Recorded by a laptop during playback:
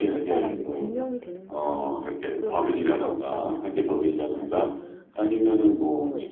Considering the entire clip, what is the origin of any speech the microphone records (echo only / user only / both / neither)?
both